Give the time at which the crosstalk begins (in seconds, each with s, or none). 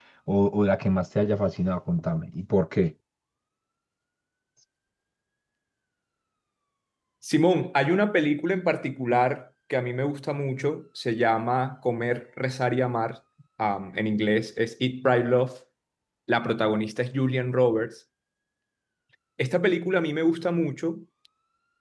none